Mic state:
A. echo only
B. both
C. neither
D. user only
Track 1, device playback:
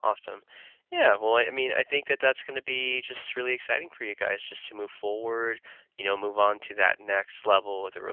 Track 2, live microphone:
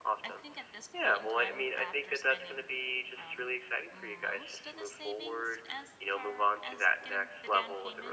B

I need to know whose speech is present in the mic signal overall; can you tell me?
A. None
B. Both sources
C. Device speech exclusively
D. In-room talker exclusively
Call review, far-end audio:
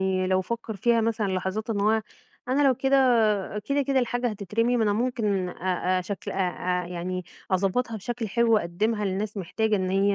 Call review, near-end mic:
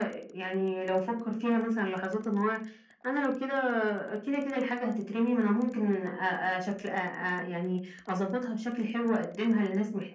C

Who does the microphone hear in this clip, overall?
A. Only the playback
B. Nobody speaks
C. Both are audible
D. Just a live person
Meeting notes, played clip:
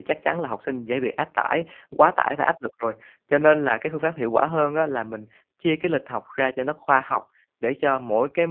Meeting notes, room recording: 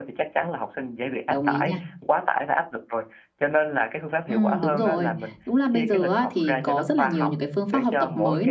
C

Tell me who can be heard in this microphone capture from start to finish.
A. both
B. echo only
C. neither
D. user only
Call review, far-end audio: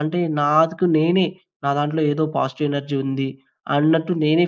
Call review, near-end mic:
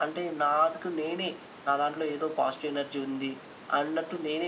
B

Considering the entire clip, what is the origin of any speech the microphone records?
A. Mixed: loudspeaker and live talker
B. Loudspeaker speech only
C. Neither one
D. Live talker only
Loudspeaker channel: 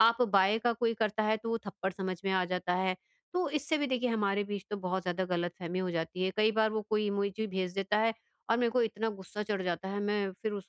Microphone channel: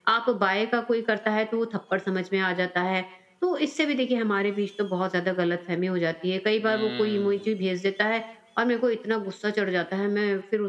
A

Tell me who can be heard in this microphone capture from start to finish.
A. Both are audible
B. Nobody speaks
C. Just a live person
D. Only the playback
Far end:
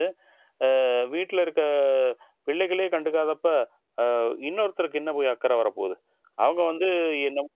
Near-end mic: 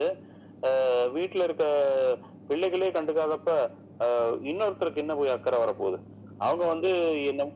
D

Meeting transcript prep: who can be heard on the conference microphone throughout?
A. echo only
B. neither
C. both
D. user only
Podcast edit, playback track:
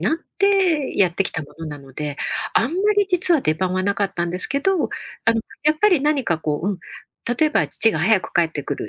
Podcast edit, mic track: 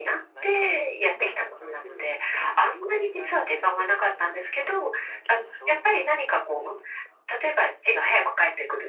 C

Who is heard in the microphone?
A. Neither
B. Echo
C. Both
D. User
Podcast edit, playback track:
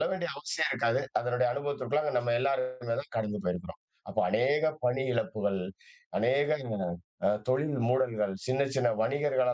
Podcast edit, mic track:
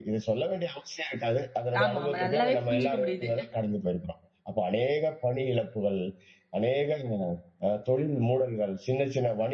C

